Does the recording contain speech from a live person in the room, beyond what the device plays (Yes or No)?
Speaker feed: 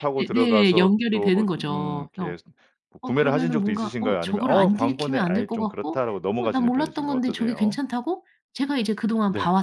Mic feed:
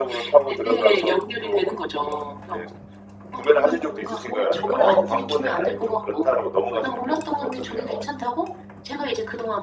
No